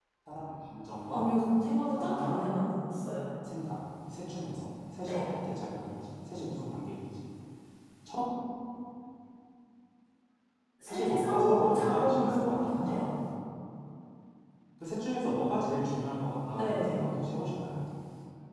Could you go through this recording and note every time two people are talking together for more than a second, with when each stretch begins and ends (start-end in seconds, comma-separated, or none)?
10.9-13.1